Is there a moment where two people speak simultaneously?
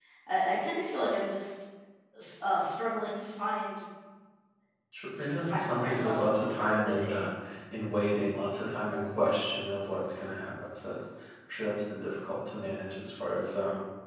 Yes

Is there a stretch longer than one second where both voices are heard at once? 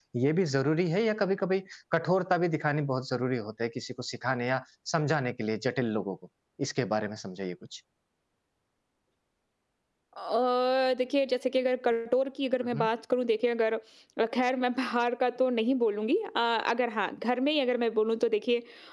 No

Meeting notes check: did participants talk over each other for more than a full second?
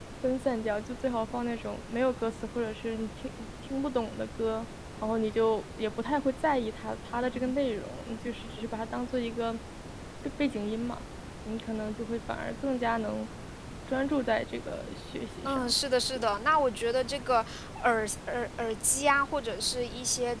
No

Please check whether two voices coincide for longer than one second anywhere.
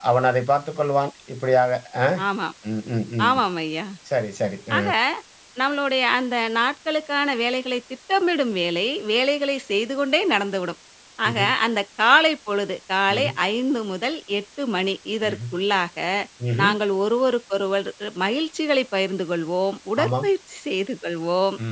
No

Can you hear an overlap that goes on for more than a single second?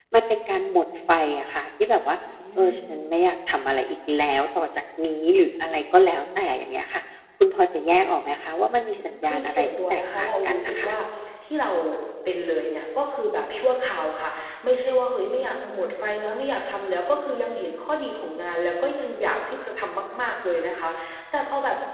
Yes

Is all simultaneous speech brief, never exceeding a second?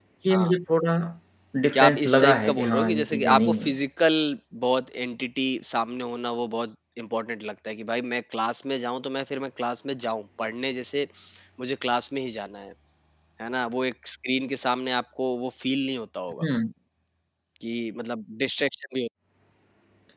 No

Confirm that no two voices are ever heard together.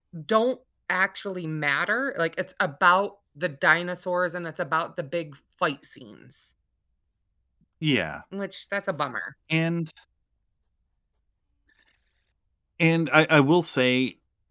Yes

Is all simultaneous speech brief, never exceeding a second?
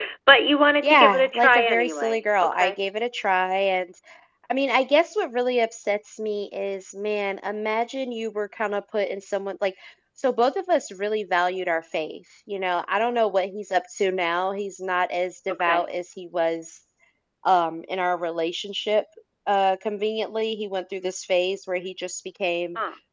No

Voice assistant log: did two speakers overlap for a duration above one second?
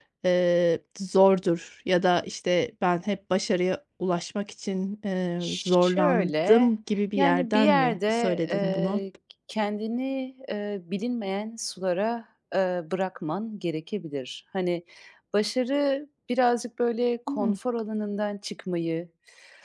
Yes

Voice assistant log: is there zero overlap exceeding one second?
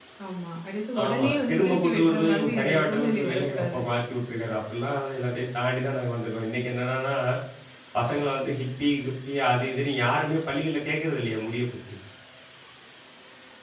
No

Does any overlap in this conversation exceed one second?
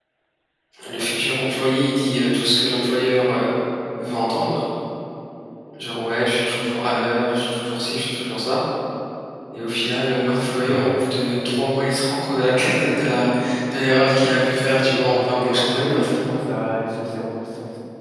Yes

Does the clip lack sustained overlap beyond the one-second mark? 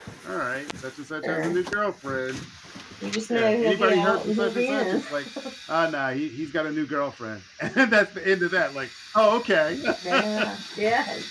No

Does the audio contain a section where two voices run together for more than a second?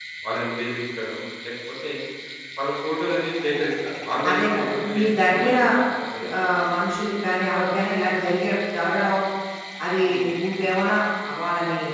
Yes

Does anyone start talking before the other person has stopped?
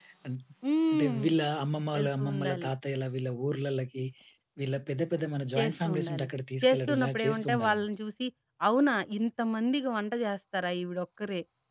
Yes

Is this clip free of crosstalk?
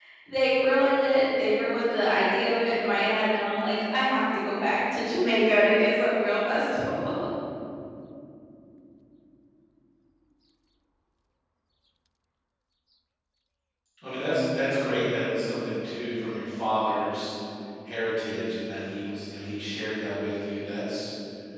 Yes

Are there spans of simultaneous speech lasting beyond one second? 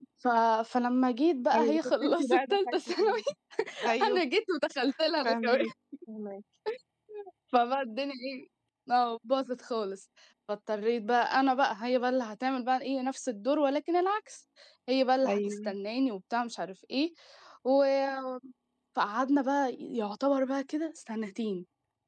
Yes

